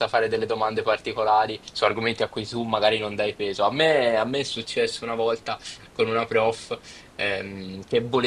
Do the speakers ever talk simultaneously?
No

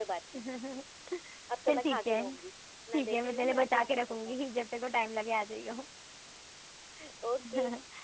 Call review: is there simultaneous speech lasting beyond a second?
Yes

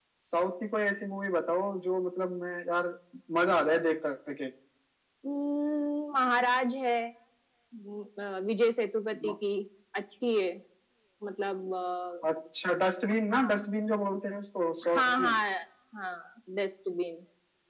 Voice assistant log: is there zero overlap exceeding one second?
Yes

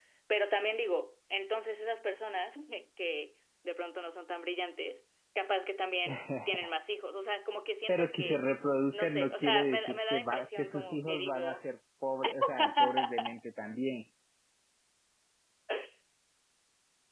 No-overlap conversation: No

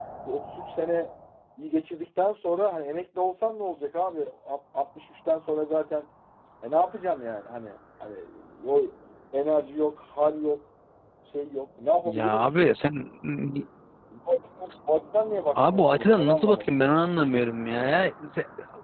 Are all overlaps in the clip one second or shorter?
No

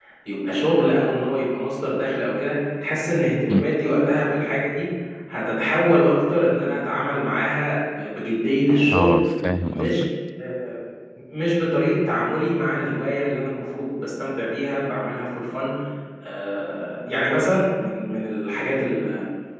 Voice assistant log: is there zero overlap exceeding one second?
Yes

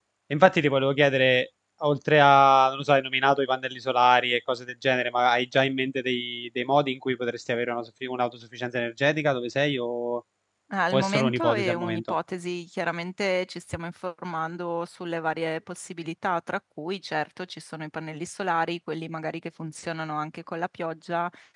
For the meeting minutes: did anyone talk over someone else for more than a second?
Yes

